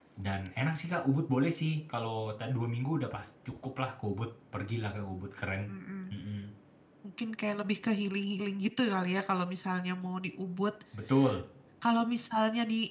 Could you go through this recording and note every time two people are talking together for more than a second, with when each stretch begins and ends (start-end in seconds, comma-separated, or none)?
none